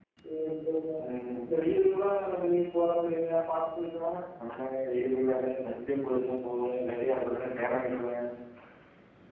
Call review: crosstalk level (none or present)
none